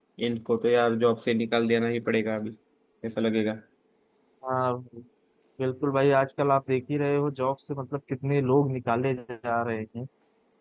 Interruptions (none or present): none